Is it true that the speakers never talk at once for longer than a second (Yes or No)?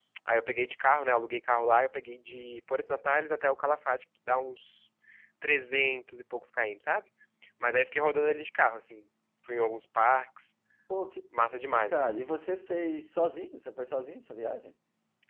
Yes